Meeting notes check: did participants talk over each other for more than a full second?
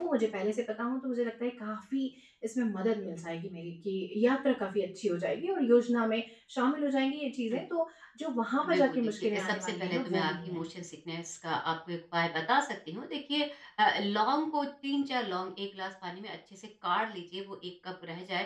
Yes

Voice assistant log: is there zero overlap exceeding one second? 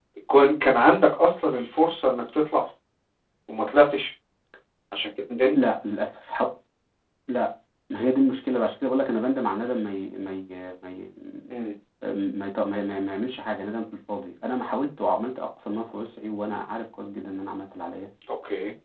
Yes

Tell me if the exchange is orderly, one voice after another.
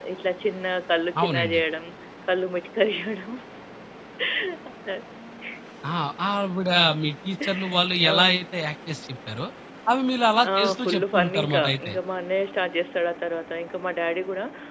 No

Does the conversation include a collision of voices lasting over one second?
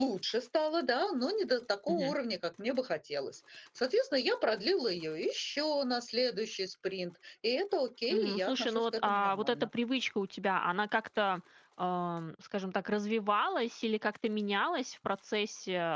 Yes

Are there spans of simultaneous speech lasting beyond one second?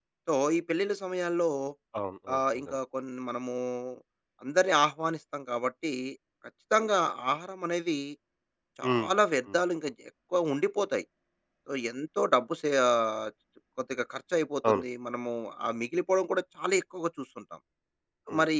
No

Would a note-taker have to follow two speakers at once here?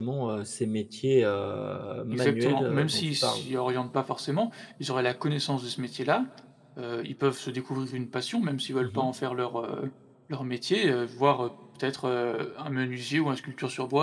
Yes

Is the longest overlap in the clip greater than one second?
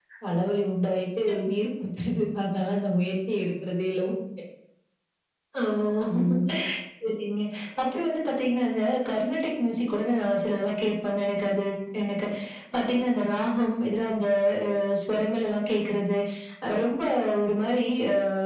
No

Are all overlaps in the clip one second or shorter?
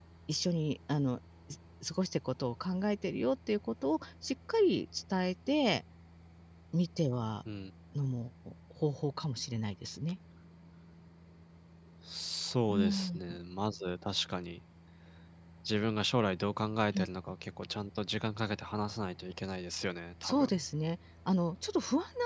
Yes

